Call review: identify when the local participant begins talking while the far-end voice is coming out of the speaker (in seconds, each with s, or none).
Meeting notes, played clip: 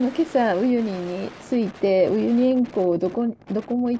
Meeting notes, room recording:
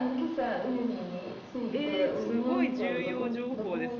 1.7 s